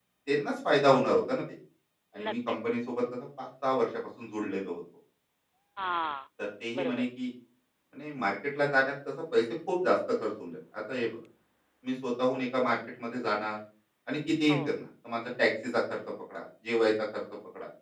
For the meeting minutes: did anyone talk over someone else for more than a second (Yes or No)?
No